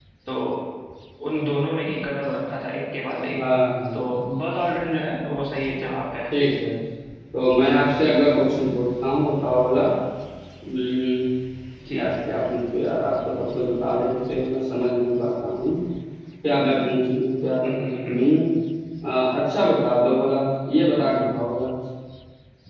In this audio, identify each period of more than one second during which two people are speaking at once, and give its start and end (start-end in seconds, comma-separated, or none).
none